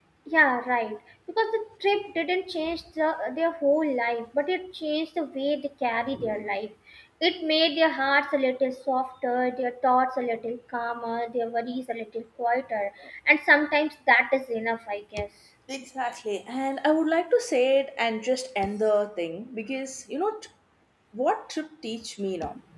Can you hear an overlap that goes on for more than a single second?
No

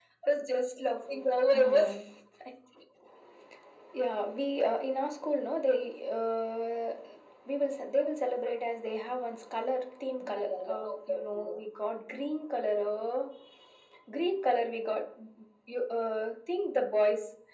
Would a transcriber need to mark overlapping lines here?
Yes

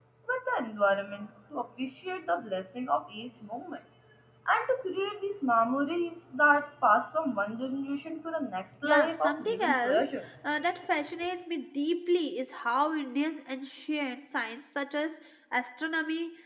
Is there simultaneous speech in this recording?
Yes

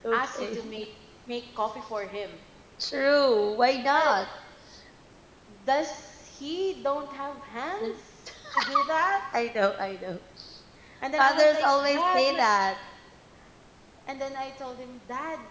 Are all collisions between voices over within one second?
No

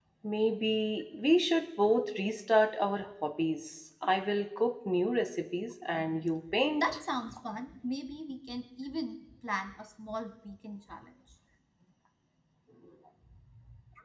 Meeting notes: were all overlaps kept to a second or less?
Yes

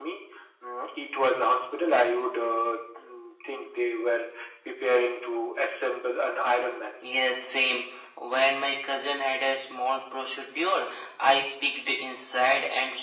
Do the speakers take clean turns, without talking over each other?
Yes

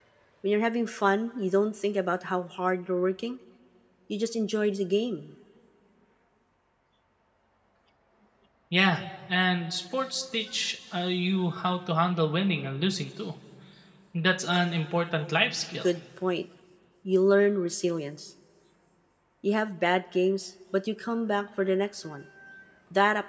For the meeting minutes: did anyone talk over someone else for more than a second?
No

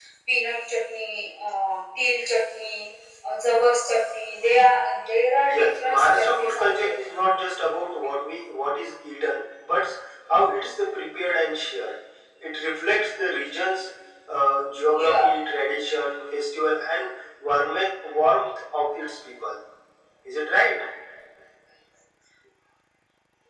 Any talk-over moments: Yes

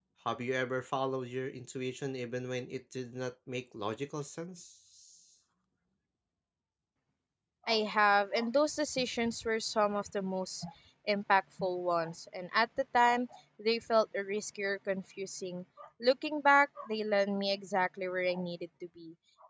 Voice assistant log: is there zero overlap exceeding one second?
Yes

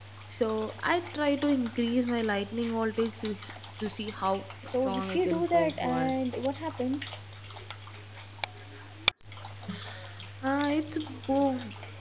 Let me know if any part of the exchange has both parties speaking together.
Yes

